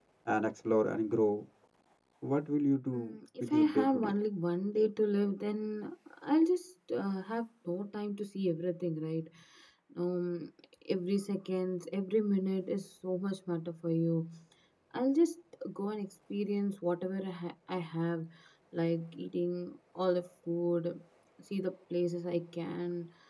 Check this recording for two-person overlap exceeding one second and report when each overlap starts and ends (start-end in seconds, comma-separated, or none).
2.9-4.1